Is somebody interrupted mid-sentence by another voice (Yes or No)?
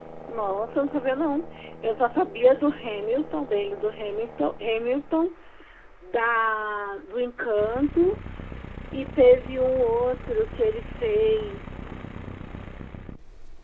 No